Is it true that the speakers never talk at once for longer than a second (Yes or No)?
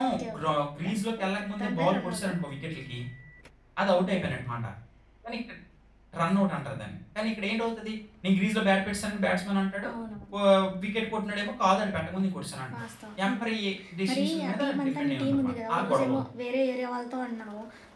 No